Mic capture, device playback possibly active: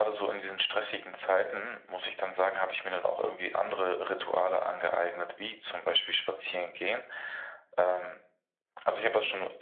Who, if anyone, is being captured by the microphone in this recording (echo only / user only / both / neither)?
echo only